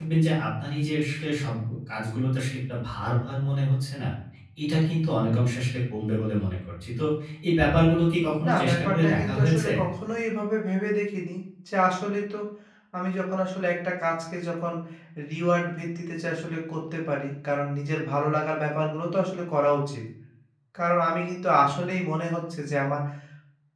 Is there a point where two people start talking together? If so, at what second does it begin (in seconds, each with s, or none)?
8.4 s